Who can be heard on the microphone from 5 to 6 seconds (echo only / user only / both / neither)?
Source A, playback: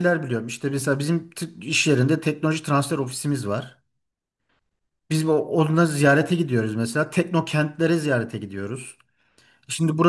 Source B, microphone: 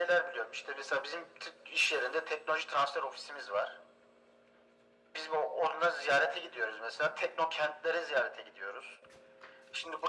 echo only